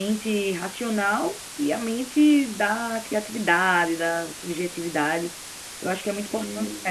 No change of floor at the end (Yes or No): Yes